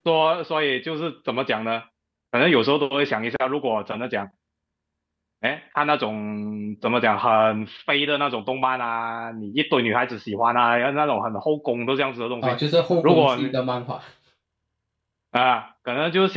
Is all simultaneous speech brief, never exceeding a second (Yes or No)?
Yes